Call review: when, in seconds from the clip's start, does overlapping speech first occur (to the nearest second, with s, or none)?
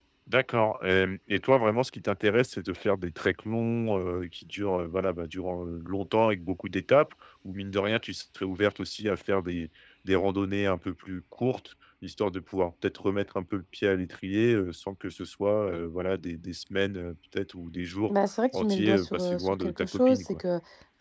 19 s